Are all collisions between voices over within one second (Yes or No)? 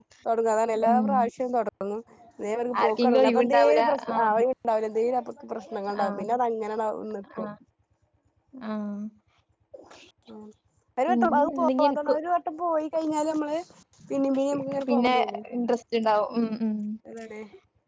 No